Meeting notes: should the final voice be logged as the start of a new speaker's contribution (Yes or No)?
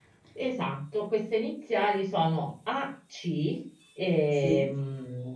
No